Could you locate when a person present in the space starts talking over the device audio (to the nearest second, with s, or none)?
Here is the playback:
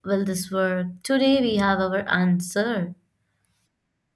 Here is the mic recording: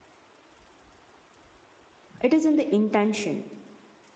2 s